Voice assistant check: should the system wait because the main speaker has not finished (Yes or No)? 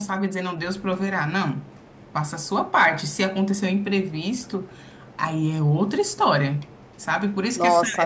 Yes